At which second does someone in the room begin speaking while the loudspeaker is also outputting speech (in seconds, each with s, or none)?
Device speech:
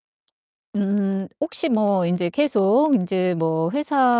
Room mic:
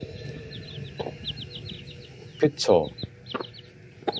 2.4 s